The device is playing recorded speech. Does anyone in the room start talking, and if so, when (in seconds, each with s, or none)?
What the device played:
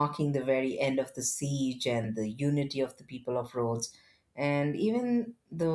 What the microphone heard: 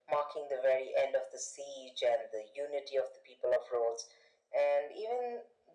none